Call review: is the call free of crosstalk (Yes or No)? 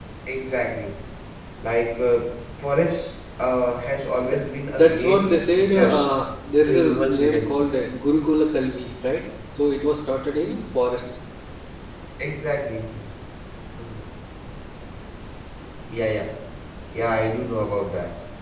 No